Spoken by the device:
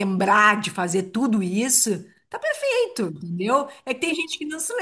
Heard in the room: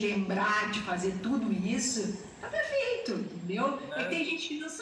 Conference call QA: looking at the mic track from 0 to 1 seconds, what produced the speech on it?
echo only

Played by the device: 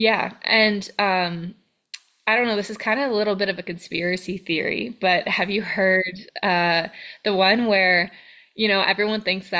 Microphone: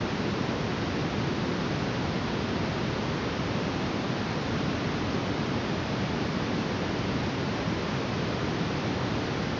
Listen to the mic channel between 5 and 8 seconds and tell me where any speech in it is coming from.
neither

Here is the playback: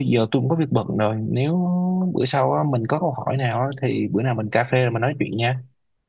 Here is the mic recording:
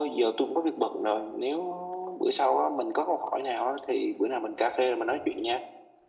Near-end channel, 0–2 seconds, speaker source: echo only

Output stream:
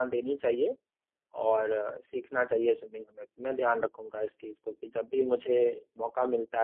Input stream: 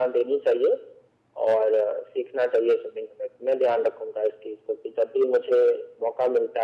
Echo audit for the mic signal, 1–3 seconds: echo only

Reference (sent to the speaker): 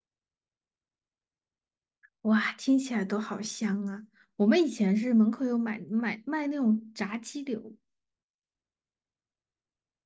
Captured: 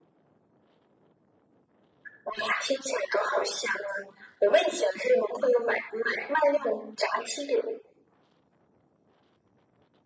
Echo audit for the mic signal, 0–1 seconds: neither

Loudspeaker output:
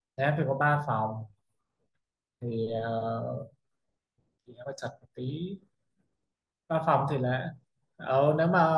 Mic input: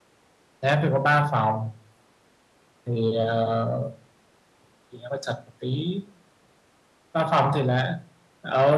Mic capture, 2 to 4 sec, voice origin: echo only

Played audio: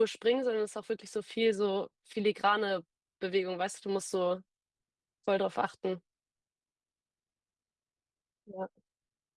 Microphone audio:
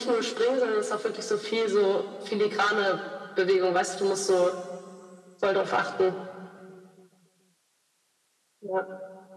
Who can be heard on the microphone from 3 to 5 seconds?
echo only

